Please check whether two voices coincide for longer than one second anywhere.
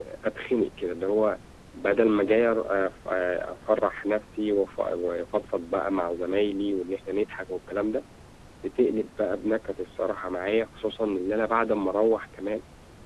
No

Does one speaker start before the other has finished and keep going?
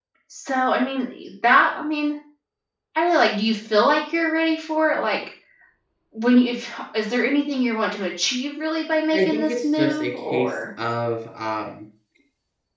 Yes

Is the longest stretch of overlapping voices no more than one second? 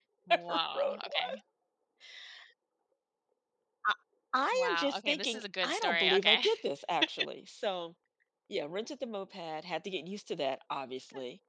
No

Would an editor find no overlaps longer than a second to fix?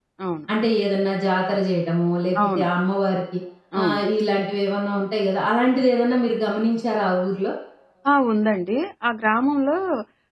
Yes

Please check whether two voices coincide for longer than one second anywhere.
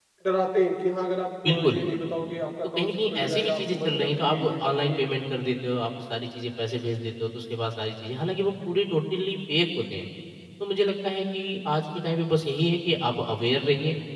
Yes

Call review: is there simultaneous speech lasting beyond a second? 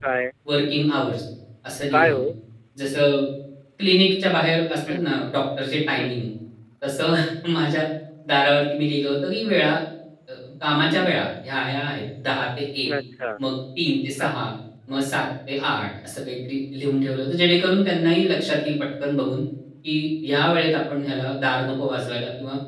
No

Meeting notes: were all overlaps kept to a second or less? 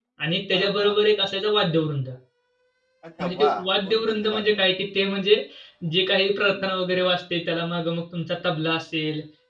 No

